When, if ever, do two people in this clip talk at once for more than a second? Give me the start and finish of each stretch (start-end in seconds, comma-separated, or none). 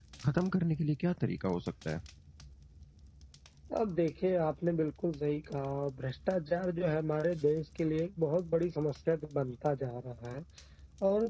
none